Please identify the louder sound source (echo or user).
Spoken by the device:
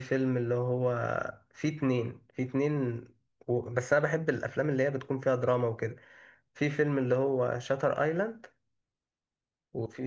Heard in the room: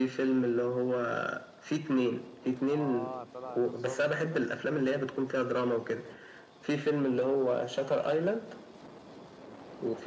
echo